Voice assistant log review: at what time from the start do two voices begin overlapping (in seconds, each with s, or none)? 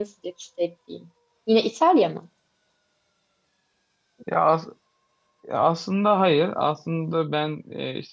none